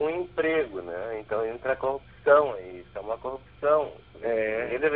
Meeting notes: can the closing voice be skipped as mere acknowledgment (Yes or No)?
Yes